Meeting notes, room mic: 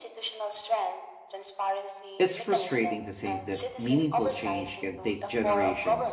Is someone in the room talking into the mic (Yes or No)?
Yes